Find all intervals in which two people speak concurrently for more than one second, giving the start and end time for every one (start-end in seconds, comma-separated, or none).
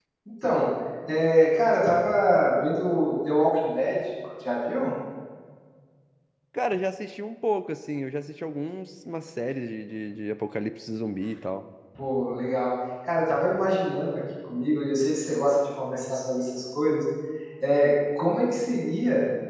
none